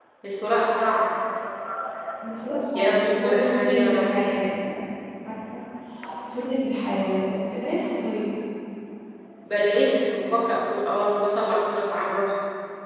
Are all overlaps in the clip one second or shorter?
No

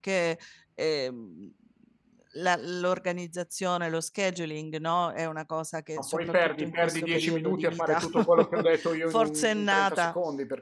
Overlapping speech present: Yes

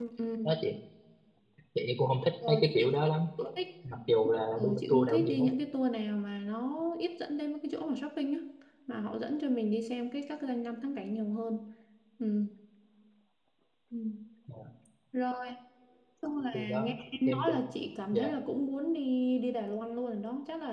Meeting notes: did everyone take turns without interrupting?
No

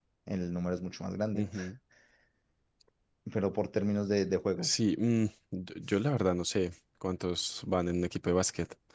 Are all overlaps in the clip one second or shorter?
Yes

